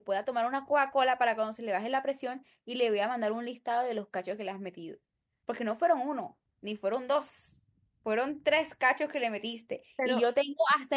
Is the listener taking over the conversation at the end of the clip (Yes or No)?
No